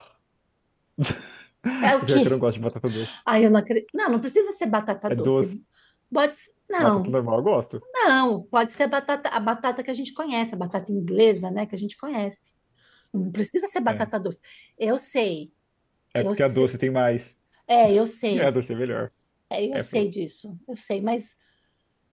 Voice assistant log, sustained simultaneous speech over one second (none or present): none